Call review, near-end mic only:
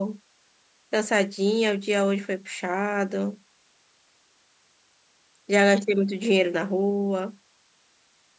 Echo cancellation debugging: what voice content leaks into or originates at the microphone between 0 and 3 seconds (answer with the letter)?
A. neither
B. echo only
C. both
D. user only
D